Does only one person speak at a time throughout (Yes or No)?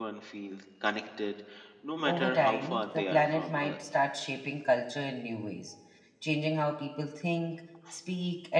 No